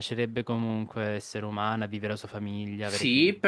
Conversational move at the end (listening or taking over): taking over